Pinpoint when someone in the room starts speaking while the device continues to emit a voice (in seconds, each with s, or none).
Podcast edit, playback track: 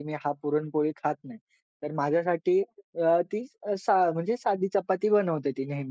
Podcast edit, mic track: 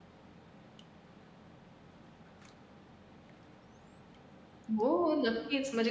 4.7 s